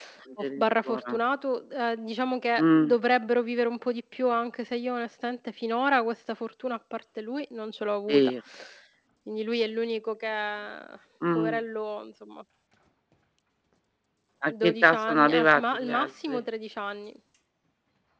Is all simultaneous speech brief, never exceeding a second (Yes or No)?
No